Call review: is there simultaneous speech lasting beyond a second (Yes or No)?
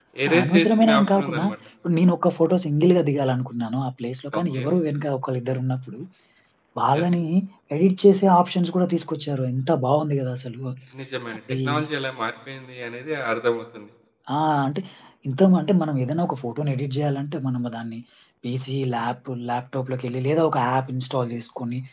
Yes